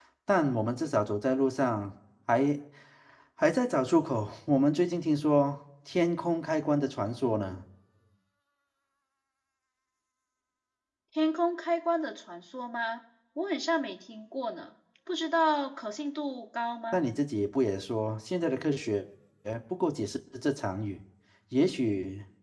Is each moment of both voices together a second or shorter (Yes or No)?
Yes